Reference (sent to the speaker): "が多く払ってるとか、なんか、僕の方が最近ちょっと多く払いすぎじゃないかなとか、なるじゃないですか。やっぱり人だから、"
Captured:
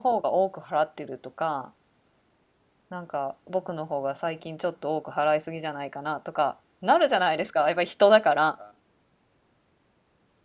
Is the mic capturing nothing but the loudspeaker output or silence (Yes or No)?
Yes